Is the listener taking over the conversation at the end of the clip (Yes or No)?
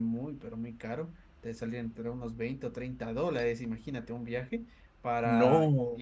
No